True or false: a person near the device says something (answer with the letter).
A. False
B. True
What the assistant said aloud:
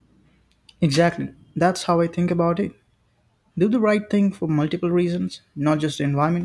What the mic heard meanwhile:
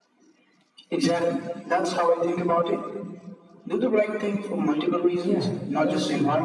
B